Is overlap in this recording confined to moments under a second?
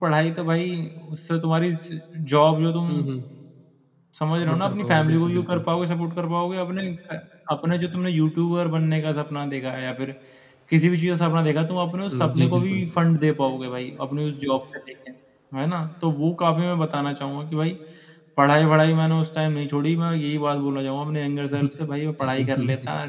No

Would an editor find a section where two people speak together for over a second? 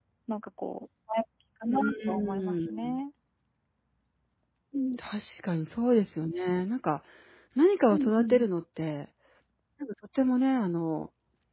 Yes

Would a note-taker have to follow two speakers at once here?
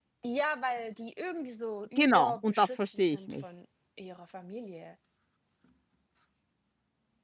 Yes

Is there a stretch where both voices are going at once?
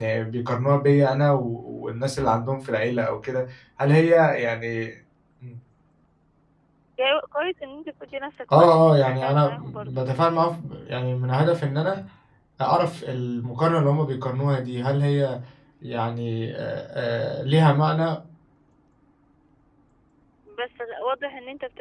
Yes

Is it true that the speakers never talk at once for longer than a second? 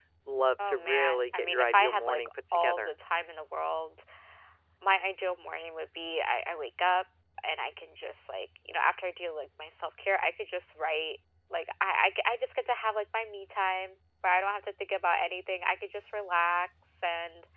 No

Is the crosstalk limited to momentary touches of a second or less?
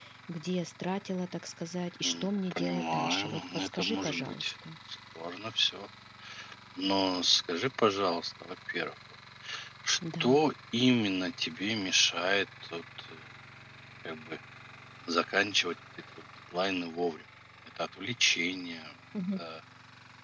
No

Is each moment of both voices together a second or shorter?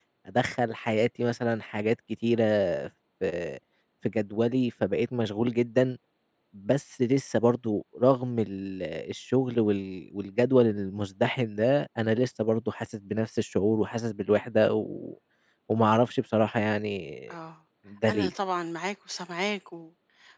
Yes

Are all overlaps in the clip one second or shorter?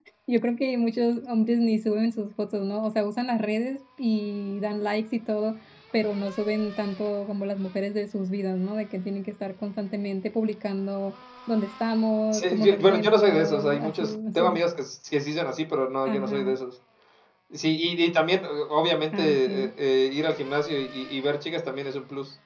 No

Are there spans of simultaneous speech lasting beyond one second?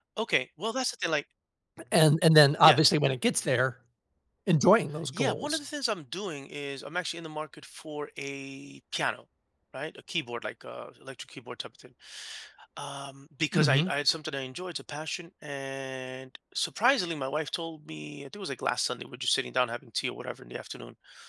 No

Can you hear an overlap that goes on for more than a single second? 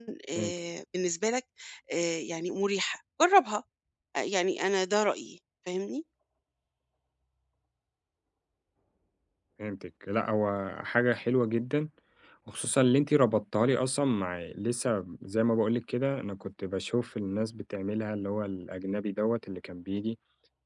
No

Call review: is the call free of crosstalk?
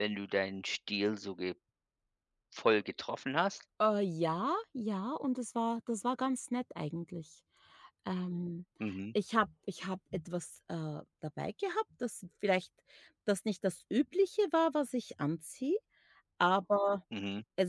Yes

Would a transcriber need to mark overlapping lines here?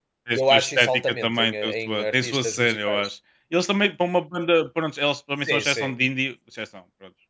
Yes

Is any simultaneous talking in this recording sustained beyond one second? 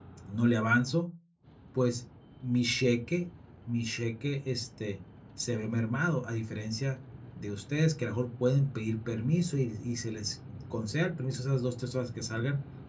No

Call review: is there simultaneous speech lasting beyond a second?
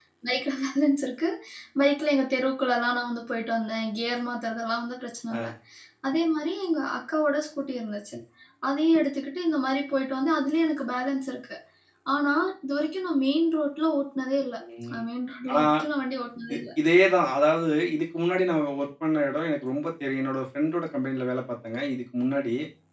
No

